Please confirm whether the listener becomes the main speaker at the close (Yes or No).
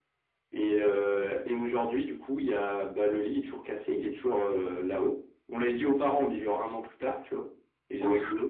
No